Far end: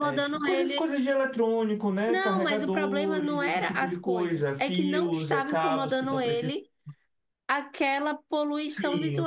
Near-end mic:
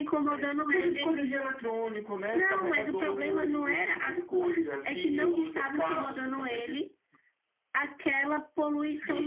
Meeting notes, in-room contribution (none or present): none